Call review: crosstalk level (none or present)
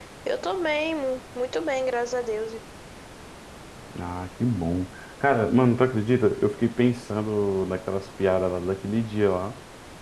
none